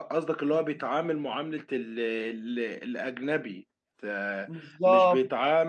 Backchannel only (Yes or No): Yes